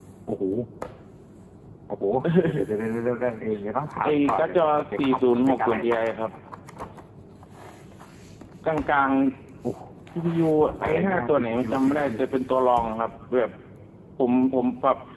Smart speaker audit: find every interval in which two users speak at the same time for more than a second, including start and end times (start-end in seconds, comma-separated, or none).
4.0-6.2, 10.8-12.1